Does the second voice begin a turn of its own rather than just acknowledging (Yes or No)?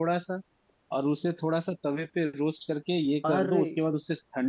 No